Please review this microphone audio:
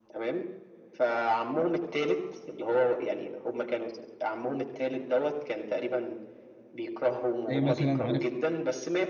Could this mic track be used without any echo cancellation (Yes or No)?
No